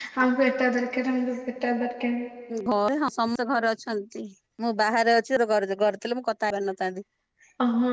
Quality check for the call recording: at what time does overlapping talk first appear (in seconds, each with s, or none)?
none